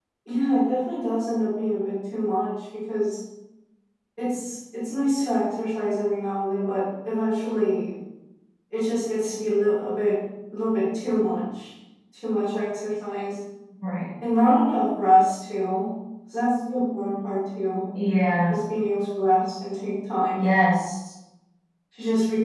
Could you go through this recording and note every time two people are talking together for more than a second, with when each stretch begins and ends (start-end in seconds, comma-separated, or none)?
none